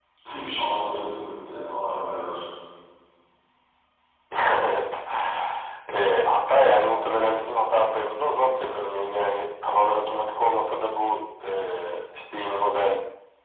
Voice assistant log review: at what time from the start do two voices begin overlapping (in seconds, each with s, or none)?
none